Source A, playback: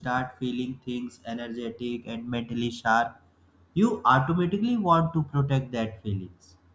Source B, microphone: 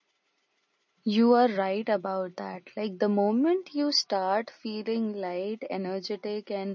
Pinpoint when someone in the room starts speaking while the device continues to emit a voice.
1 s

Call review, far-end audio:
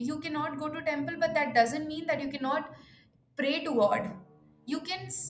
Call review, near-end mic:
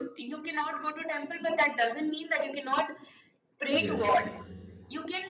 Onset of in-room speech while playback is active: 4 s

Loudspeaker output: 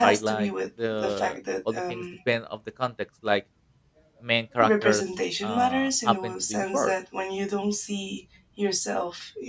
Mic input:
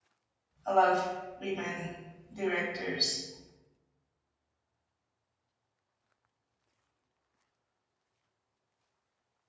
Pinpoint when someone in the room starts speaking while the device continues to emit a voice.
1 s

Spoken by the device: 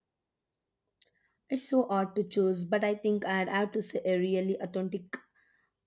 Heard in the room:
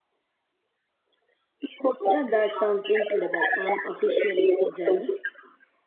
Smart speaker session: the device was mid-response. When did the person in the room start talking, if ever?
2 s

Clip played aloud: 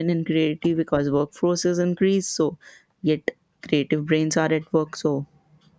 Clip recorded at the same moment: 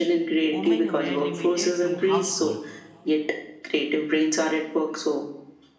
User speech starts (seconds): 0 s

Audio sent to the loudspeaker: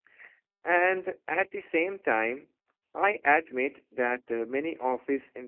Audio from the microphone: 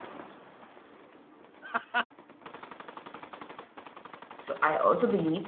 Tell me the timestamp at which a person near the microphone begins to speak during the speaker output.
4 s

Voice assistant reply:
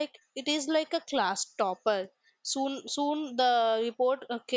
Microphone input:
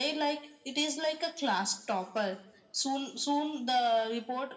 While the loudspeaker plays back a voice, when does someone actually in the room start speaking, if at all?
none

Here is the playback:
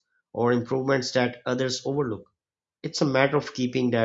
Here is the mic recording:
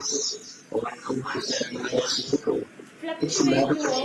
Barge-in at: 3 s

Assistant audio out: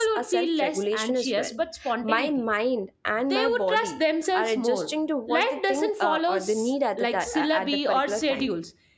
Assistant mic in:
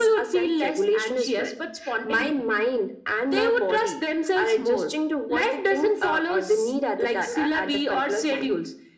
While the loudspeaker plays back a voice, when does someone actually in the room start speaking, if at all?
none

